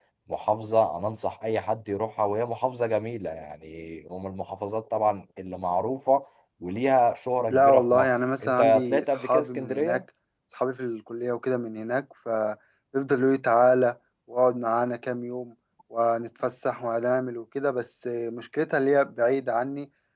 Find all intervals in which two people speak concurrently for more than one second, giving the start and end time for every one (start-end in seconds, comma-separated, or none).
7.4-10.0